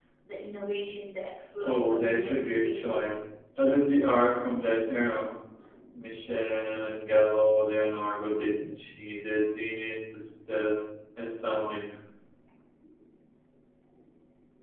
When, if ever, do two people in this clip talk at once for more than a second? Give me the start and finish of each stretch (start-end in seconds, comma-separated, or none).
1.6-3.0